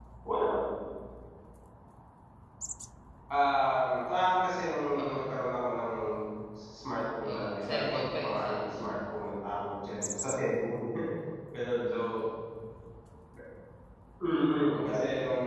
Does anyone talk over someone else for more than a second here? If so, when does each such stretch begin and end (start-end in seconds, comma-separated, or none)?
7.2-8.9